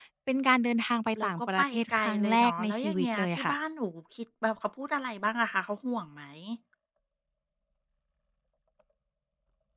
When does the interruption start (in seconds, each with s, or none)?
1.2 s